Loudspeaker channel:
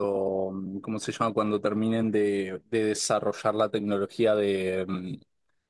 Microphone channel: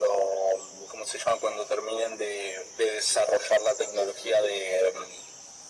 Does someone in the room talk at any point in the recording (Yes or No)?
No